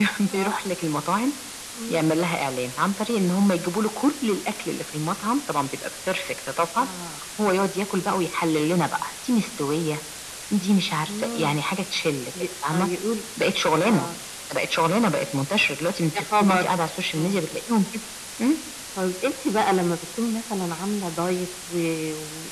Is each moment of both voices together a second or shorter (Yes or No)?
Yes